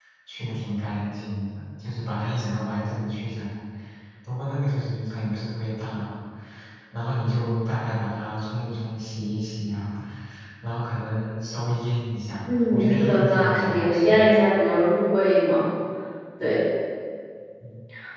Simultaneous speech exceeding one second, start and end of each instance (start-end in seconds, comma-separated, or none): 12.7-14.2